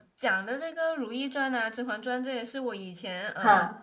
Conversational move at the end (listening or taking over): listening